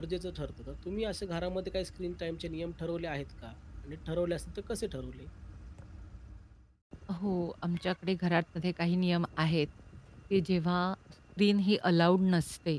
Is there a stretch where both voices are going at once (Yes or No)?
No